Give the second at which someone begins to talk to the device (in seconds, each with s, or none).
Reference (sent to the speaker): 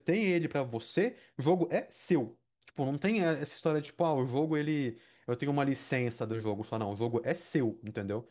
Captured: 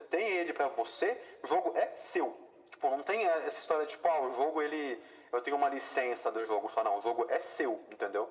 none